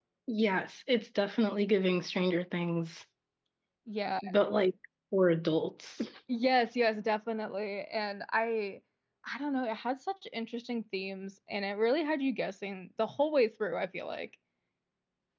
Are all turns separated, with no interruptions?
Yes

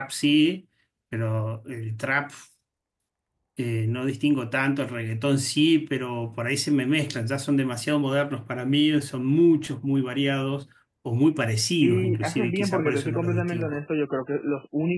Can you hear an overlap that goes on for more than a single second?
Yes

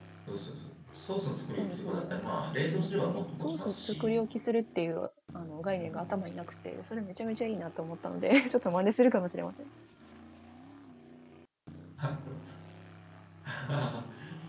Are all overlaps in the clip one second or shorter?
No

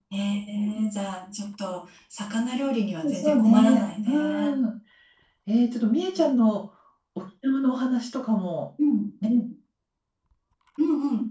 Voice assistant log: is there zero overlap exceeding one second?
No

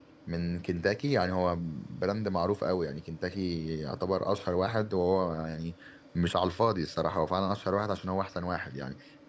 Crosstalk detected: No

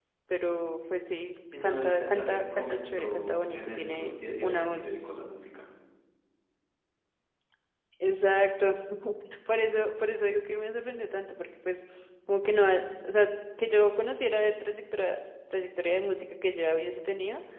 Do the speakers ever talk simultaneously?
Yes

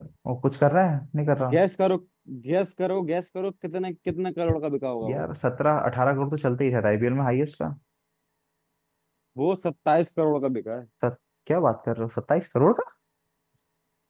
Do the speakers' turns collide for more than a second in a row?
No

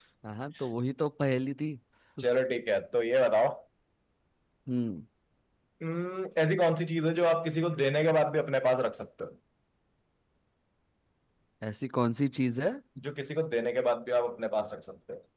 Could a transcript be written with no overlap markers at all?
Yes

